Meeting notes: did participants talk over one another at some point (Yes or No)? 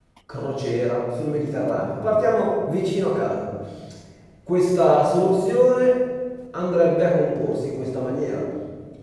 No